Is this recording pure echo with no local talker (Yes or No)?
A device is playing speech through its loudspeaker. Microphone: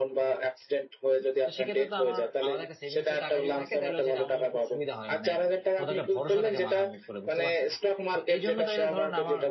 No